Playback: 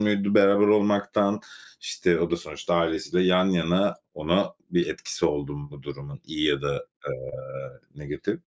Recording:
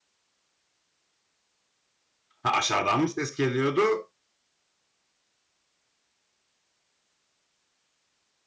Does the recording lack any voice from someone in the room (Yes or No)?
No